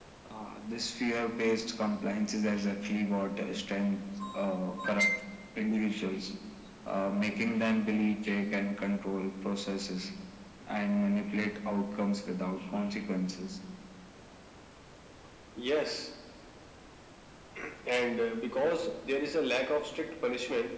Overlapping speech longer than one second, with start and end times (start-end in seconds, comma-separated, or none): none